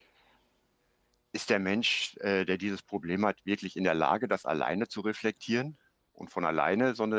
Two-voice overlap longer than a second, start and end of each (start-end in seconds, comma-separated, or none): none